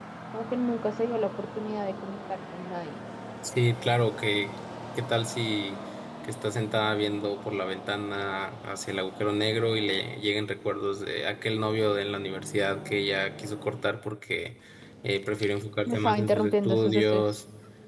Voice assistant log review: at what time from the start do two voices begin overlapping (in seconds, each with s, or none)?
15.8 s